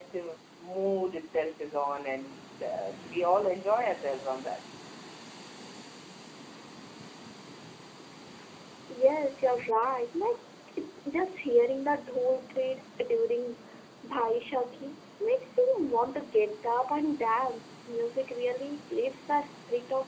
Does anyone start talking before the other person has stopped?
No

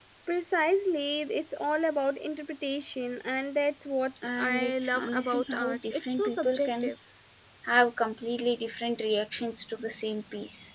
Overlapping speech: Yes, from 4.2 s

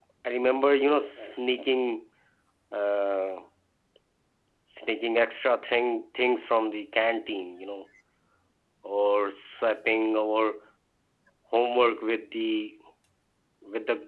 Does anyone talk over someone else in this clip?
No

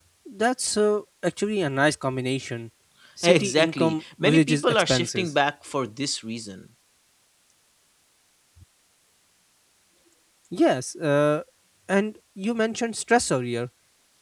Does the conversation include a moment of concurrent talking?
Yes, from 3.2 s

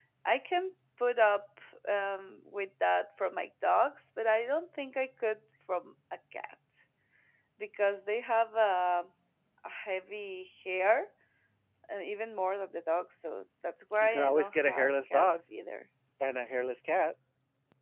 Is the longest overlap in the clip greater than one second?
Yes, from 14.0 s

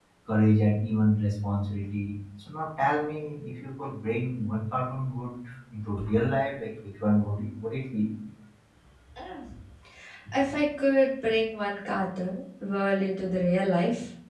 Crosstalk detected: No

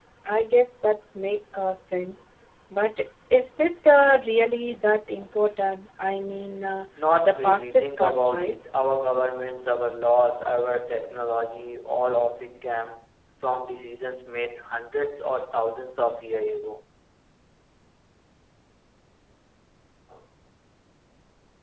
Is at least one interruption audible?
Yes, from 7.2 s

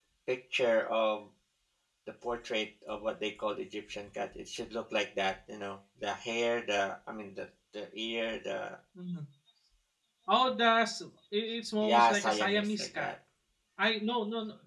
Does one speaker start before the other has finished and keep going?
Yes, from 11.8 s

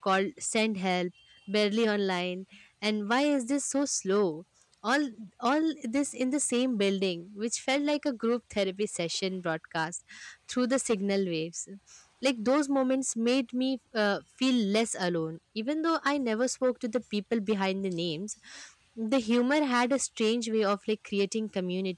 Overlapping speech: No

